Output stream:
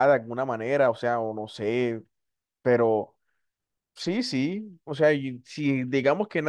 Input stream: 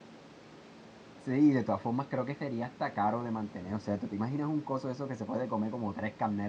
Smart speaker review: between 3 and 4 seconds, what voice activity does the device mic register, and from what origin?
user only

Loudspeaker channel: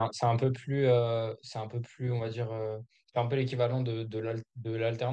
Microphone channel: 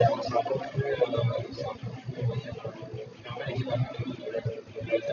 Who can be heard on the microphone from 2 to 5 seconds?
echo only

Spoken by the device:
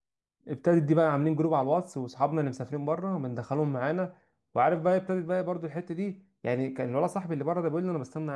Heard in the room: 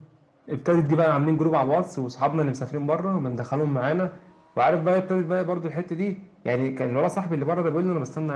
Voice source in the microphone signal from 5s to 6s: echo only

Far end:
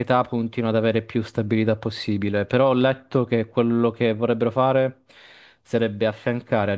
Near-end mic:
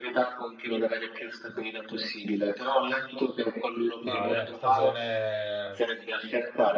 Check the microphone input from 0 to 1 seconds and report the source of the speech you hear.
echo only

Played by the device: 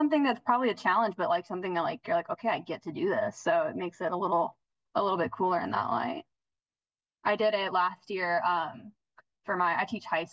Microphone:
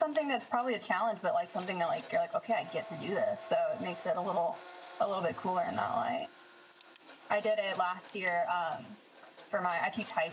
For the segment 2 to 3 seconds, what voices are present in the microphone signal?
echo only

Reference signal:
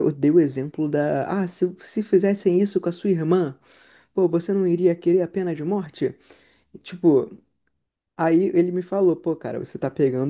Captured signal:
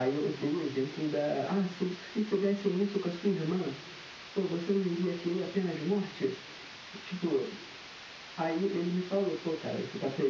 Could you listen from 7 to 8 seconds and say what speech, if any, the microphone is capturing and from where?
echo only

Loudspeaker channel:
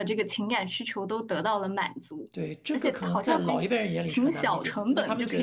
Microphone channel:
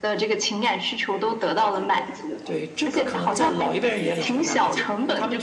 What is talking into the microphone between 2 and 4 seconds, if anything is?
both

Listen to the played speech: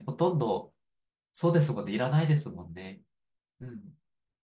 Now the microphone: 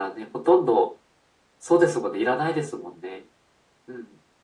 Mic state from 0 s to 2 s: echo only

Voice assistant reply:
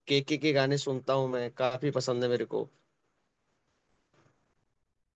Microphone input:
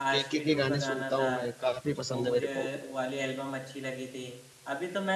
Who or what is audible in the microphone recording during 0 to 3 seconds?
both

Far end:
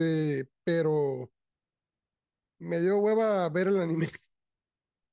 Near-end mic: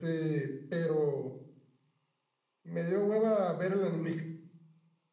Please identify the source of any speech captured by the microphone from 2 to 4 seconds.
echo only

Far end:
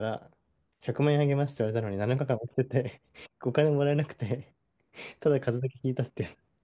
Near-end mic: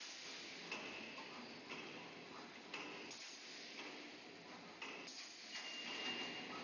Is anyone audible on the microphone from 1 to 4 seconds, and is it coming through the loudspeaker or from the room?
neither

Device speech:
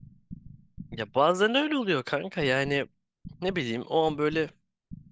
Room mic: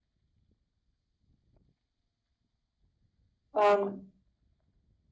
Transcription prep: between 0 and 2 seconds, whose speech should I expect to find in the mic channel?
neither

